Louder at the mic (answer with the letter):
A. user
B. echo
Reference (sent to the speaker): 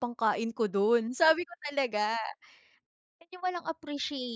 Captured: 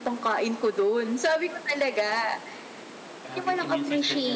B